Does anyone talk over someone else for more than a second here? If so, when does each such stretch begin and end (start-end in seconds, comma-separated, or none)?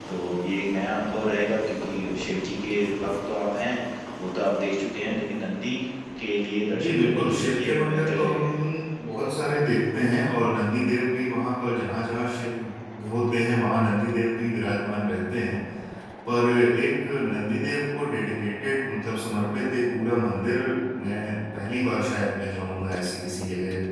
6.8-8.4